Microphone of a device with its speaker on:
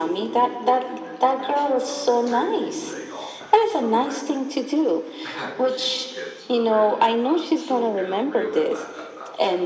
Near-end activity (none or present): present